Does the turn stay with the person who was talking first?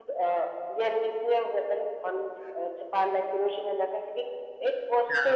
Yes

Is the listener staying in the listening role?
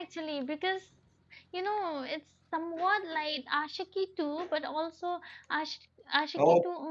No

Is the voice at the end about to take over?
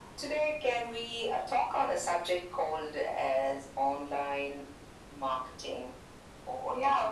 No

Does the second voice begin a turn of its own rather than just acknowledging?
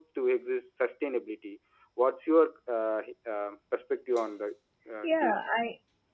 Yes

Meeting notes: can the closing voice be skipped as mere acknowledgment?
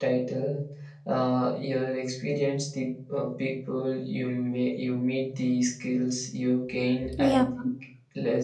Yes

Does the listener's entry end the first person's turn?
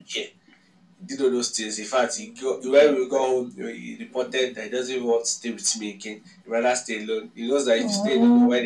No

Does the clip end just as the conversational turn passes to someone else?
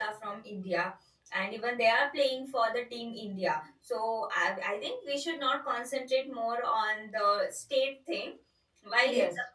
No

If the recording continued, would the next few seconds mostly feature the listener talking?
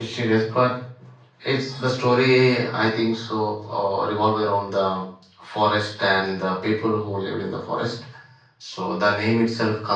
No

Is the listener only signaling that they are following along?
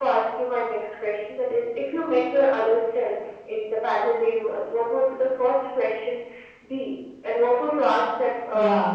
No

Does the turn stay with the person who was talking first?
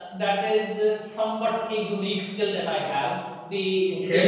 Yes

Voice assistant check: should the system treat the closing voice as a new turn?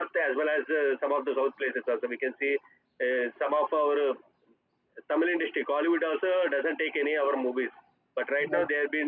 No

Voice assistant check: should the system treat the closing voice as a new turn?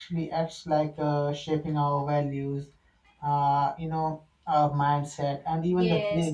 Yes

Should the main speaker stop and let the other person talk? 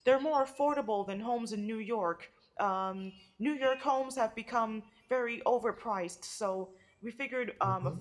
No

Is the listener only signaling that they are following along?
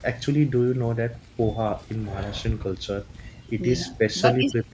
No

